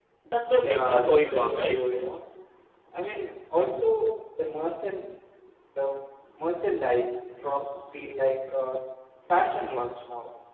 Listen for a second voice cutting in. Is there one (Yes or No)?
Yes